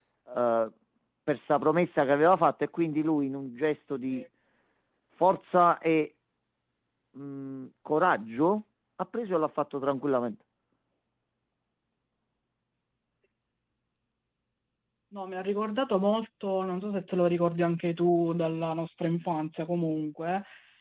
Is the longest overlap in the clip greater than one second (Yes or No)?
No